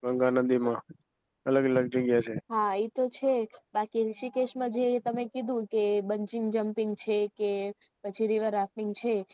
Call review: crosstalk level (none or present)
none